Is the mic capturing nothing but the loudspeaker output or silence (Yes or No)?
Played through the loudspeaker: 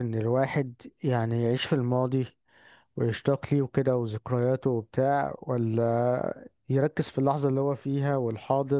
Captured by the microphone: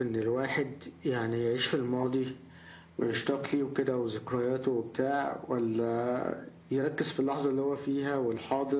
Yes